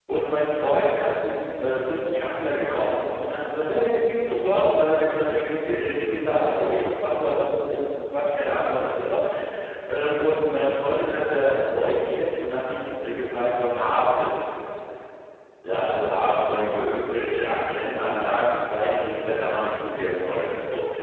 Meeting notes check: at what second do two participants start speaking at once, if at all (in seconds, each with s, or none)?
none